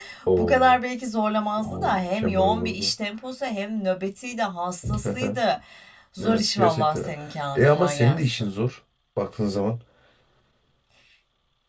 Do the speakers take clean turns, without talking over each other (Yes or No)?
No